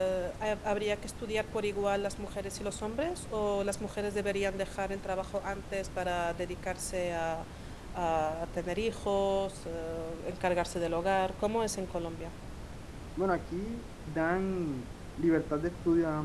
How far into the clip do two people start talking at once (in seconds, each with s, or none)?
none